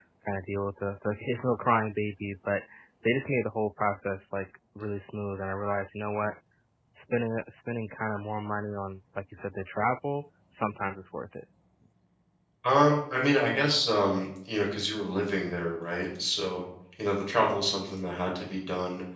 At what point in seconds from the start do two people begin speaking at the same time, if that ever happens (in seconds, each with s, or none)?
none